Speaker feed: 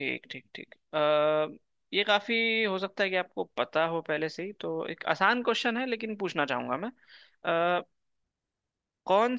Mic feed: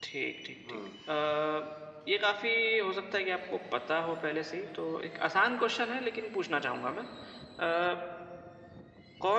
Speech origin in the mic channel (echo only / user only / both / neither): both